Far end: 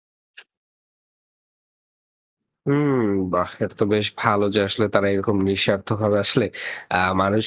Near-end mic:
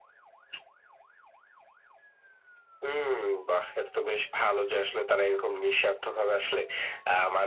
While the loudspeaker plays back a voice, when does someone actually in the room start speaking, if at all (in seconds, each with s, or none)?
none